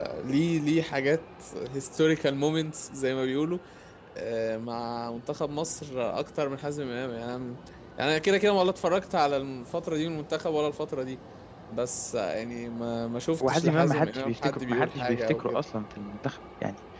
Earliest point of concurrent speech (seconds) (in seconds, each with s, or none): 13.4 s